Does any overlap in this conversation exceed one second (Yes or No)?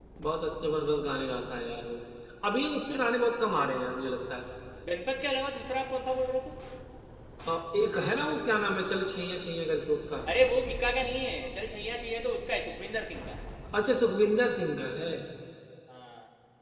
No